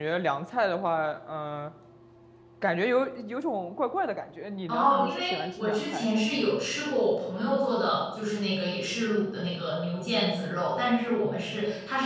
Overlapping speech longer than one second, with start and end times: 4.7-6.5

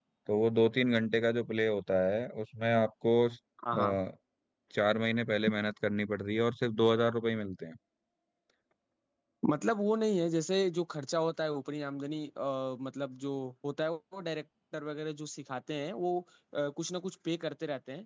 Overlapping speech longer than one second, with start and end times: none

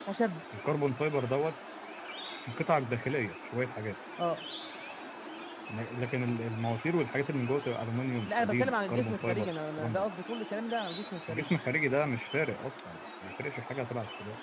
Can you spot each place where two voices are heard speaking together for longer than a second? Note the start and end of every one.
8.2-10.1

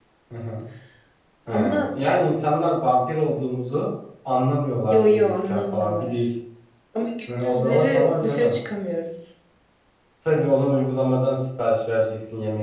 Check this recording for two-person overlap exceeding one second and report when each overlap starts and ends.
4.8-6.2, 7.3-8.6

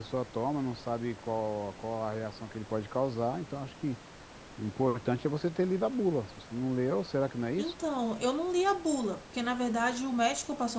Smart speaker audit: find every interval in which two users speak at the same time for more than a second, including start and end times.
none

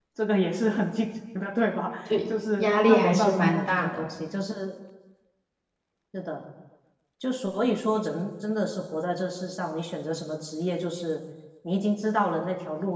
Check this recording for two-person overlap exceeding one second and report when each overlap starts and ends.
2.6-4.1

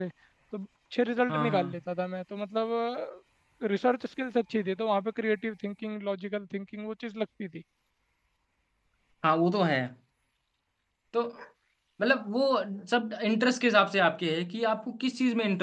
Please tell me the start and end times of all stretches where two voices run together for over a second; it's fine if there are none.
none

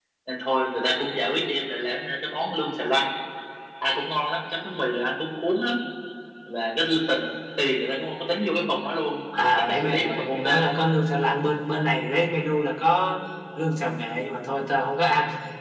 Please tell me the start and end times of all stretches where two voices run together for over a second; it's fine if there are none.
9.6-10.9

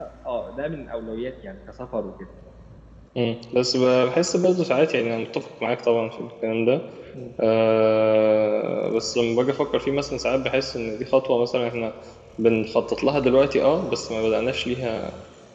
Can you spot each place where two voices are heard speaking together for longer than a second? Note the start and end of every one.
none

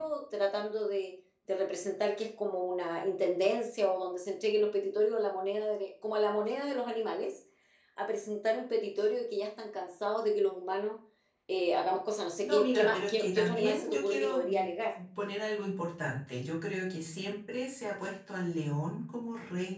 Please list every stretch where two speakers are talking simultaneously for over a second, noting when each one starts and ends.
12.4-14.6

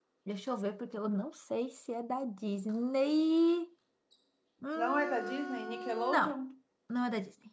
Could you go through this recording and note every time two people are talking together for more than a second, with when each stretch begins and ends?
4.8-6.4

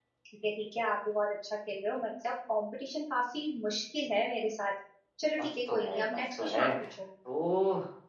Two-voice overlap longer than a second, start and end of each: 5.4-6.6

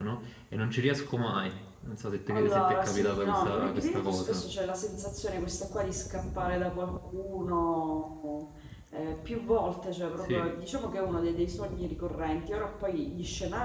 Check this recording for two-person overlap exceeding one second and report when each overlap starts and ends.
2.3-4.4

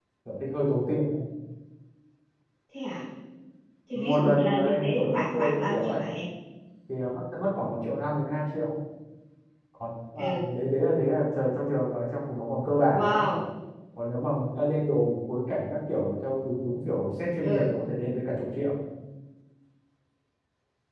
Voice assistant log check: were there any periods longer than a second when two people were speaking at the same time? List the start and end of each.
4.0-6.0

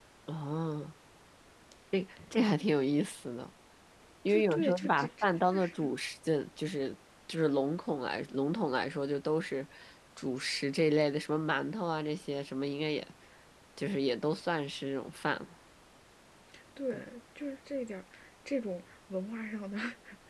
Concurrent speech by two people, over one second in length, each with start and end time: 4.3-5.7

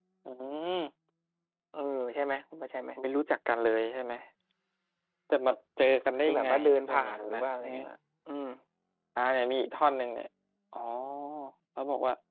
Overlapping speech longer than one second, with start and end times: 6.2-7.4

